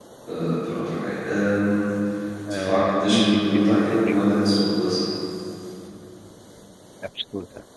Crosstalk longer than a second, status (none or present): present